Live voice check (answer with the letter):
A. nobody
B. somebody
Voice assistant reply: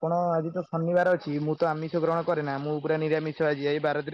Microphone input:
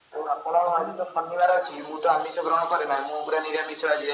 B